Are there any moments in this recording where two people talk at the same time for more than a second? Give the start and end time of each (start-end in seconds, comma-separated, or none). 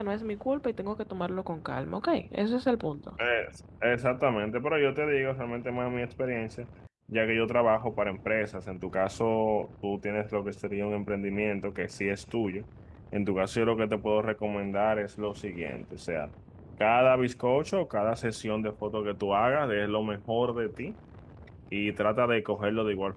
none